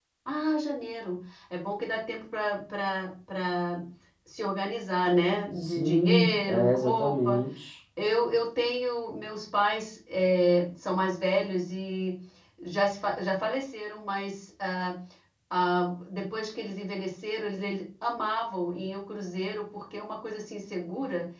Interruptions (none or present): present